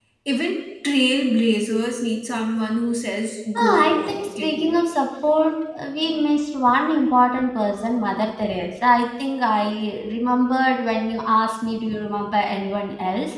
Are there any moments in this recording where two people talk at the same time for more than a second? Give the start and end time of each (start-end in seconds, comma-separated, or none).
3.6-4.8